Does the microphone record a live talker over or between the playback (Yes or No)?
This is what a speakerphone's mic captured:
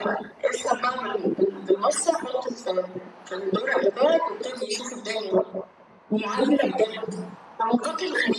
No